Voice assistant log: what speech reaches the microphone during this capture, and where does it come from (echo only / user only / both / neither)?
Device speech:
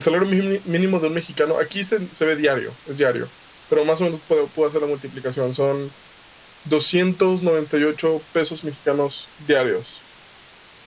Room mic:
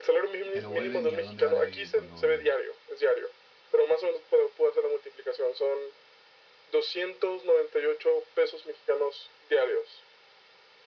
both